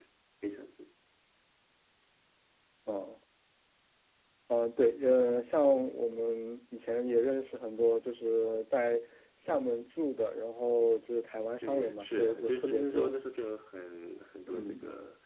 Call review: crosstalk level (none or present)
present